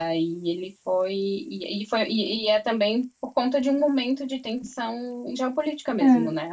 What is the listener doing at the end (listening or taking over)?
taking over